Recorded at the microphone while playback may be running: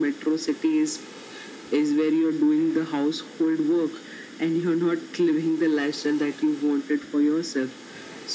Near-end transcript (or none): none